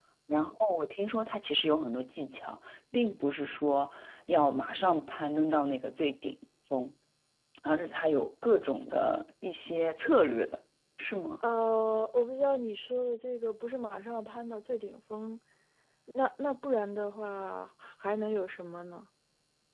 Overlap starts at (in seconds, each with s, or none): none